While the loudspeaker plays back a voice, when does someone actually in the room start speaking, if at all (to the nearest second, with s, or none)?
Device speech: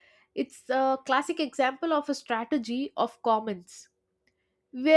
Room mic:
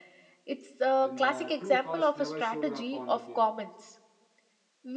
1 s